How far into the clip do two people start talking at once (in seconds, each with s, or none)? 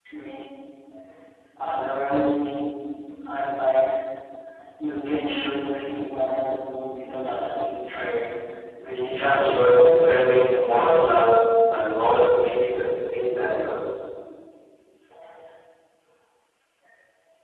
9.1 s